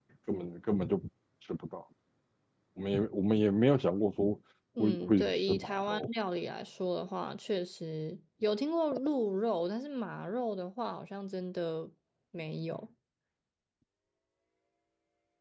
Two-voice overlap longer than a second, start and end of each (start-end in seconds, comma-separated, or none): 4.8-6.1